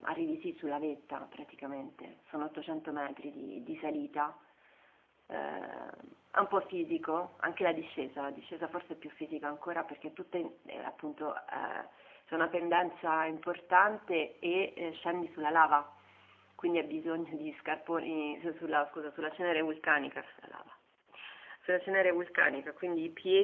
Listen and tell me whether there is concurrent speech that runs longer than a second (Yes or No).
No